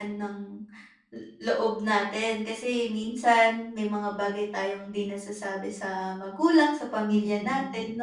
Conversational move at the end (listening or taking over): taking over